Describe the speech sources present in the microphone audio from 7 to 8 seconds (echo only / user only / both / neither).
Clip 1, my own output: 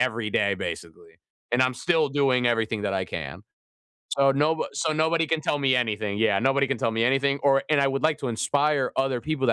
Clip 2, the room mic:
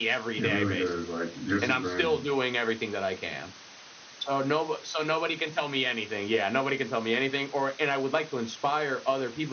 echo only